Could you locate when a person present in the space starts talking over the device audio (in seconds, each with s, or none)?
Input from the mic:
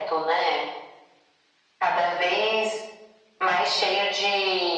none